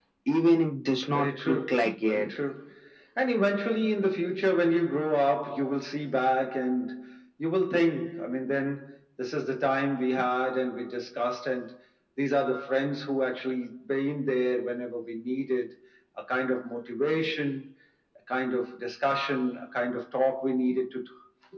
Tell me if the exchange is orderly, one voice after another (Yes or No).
No